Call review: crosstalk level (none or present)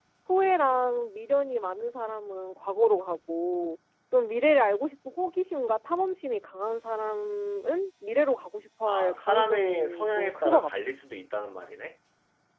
present